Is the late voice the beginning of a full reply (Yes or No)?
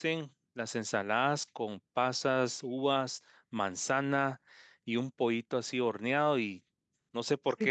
Yes